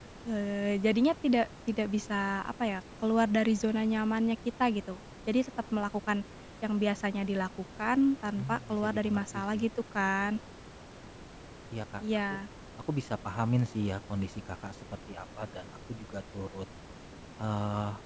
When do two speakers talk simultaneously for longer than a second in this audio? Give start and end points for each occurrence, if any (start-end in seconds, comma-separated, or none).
8.4-9.6